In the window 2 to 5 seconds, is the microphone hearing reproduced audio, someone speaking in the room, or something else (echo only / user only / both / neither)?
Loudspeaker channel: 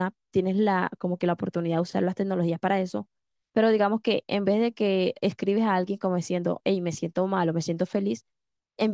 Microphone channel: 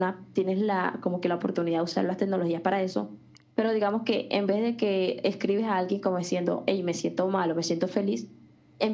echo only